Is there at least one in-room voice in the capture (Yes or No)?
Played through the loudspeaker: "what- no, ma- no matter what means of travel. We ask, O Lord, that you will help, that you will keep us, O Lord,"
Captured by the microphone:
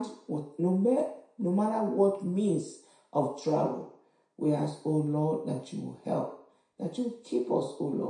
No